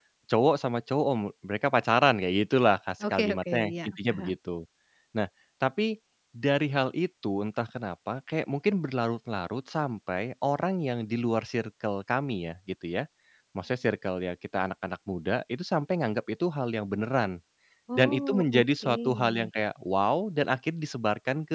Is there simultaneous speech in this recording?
Yes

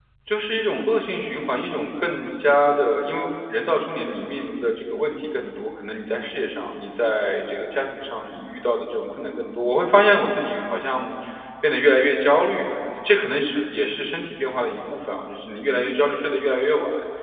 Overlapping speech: No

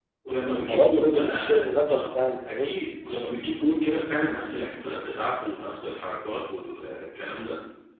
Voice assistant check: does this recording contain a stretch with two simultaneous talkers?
Yes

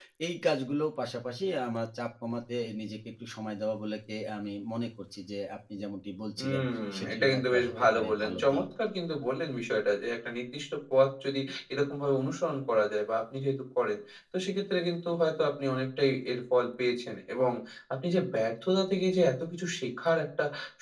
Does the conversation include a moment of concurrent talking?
Yes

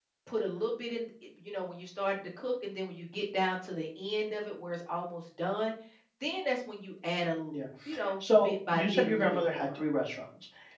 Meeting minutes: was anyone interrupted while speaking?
Yes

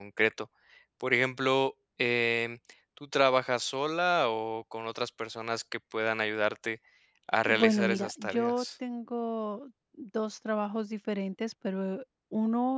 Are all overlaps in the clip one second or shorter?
No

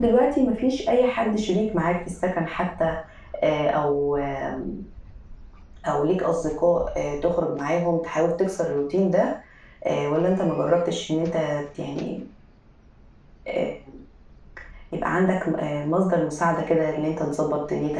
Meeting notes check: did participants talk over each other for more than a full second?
No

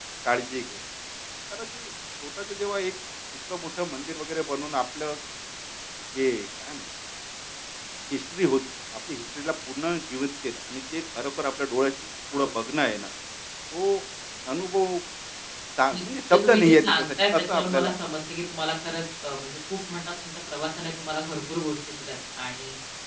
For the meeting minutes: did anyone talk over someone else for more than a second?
Yes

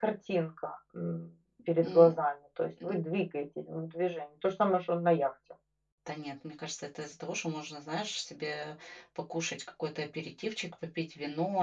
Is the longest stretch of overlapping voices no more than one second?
Yes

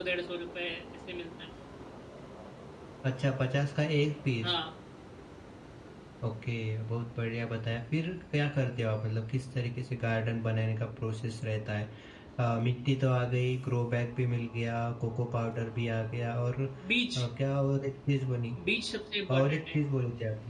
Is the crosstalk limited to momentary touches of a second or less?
Yes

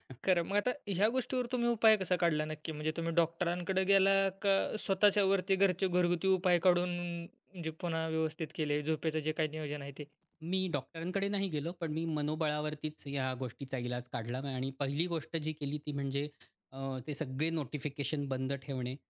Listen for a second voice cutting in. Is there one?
No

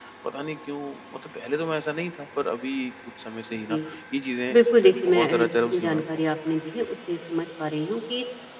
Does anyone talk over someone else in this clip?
Yes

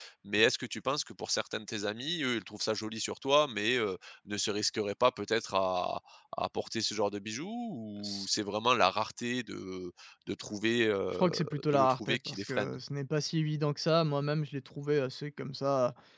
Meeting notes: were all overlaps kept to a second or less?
No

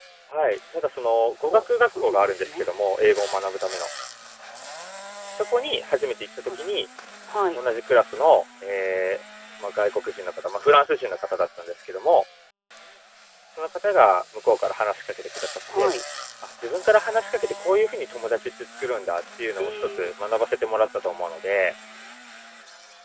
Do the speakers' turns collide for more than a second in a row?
Yes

